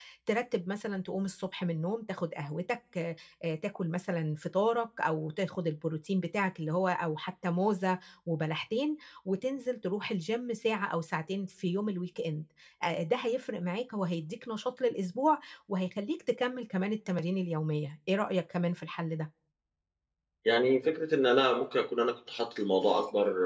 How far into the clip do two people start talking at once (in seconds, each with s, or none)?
none